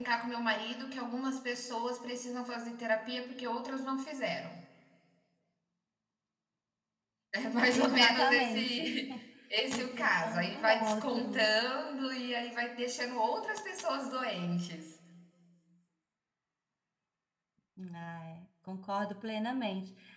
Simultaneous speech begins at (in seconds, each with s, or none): 7.7 s